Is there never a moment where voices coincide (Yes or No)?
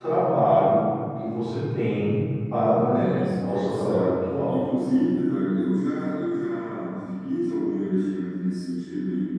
No